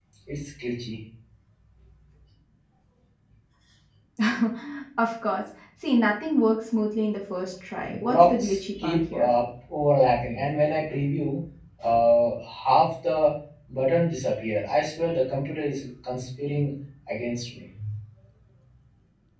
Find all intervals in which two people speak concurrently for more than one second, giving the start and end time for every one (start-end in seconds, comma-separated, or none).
7.8-9.3